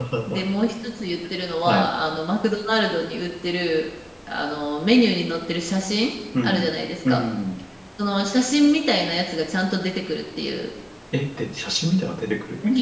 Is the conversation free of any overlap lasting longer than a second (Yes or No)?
Yes